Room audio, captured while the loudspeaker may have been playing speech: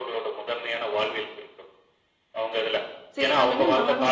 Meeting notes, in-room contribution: present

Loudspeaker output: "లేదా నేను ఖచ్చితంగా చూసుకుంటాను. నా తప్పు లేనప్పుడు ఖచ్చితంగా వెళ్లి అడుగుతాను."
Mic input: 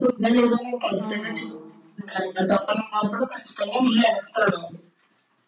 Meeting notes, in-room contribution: present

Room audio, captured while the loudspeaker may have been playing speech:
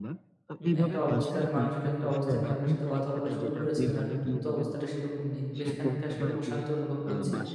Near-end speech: present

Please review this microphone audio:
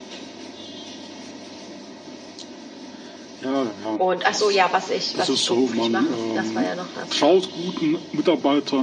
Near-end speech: present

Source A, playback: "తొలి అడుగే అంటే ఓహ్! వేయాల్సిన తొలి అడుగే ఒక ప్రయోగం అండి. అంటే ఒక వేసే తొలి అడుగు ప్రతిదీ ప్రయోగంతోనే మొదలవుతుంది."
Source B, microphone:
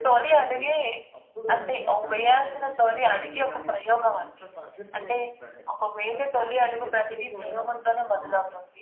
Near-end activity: present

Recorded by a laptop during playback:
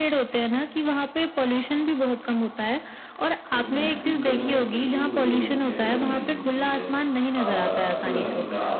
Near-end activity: present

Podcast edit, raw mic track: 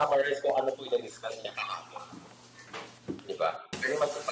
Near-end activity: none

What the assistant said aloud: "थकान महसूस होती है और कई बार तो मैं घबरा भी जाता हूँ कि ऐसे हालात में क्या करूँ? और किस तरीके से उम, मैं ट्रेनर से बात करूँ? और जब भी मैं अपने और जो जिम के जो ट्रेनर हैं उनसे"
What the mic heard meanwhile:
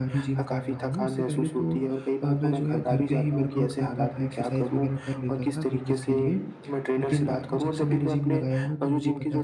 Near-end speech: present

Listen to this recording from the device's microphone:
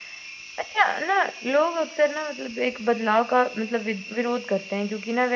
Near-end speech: none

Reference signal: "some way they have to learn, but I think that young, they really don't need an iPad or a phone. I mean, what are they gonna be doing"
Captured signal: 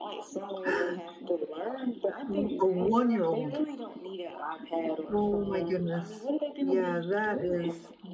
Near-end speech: present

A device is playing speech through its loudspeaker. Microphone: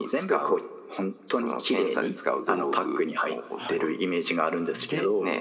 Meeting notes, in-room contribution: present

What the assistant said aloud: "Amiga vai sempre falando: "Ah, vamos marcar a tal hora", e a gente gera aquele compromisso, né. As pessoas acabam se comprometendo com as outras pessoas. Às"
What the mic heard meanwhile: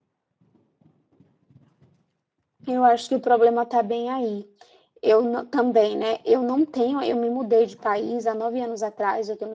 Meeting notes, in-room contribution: present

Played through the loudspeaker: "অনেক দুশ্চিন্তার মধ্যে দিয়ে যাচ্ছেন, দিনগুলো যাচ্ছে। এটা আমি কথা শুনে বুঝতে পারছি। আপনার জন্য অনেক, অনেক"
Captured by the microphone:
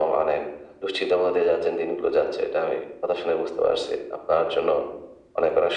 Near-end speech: none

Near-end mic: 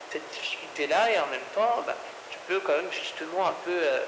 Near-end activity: none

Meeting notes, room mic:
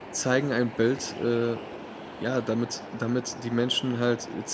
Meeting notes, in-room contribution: present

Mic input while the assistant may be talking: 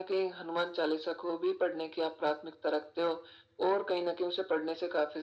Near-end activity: none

